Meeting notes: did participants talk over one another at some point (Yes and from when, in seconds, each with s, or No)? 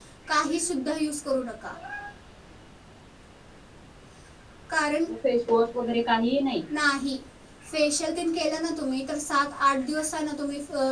No